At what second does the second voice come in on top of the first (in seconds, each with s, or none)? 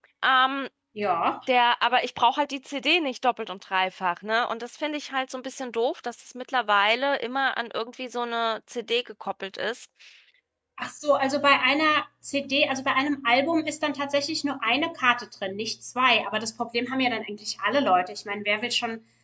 none